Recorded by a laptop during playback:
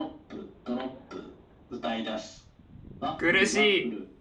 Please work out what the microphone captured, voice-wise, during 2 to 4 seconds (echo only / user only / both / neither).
both